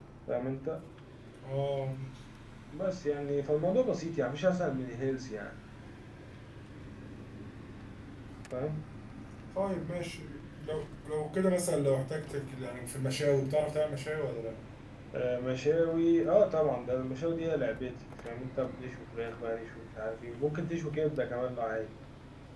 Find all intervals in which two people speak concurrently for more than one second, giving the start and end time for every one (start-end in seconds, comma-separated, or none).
none